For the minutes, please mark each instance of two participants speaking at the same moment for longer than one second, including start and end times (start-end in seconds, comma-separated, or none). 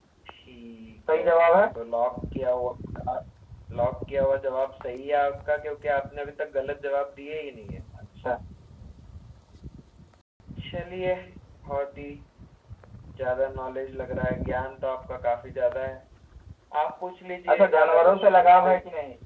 17.5-18.7